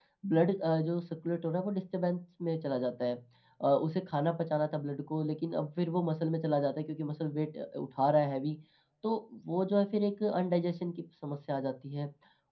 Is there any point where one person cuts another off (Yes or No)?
No